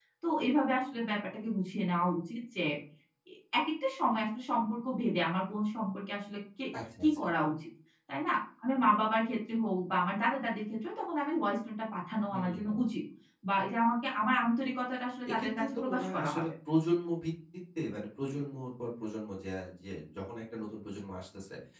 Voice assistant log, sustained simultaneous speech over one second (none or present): present